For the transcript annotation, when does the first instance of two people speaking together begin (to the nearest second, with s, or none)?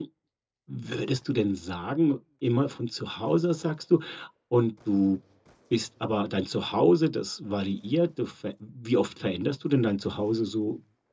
none